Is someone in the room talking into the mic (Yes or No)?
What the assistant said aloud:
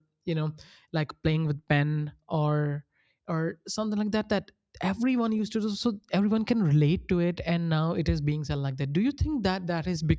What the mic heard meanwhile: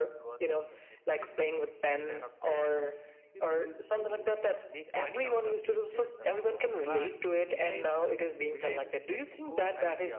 Yes